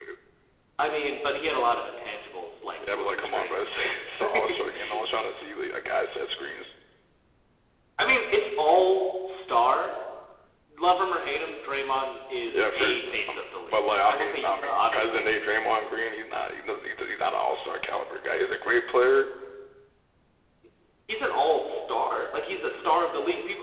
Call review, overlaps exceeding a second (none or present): present